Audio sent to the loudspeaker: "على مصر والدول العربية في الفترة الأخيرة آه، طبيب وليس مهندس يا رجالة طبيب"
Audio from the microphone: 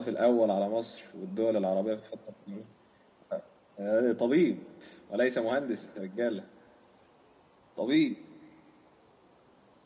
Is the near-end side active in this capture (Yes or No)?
No